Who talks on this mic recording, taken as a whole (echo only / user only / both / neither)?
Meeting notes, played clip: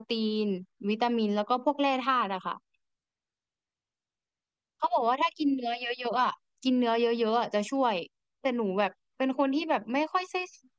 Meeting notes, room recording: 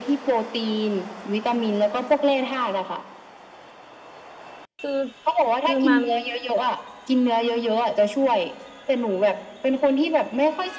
both